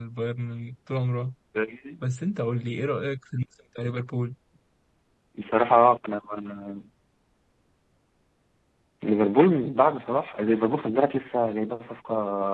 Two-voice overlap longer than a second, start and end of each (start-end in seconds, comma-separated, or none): none